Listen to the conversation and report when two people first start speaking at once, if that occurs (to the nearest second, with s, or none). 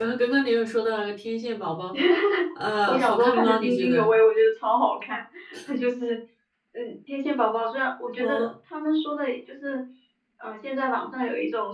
3 s